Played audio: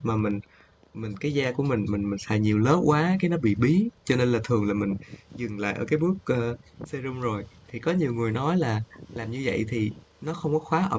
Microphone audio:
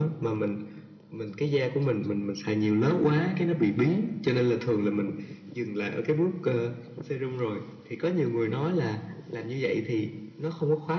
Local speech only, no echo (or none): none